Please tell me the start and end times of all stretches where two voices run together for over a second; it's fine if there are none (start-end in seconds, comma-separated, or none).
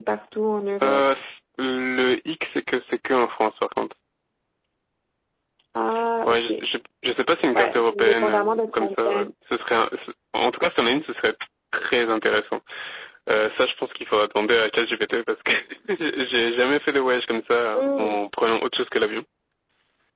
7.5-9.3